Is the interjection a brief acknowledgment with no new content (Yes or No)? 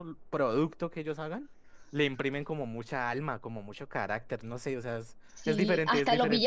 No